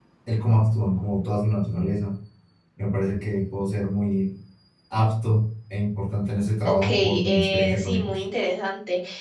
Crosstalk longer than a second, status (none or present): present